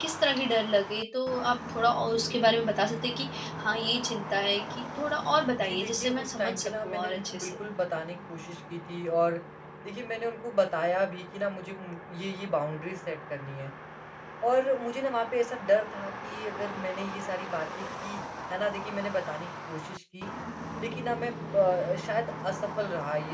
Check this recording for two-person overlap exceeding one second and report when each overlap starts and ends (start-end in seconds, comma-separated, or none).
5.5-7.5